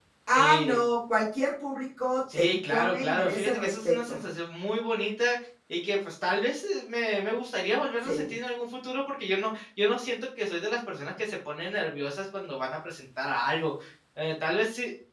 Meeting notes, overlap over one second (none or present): present